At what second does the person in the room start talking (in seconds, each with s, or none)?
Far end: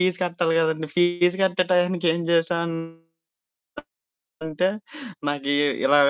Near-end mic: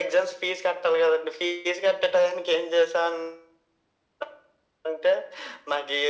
none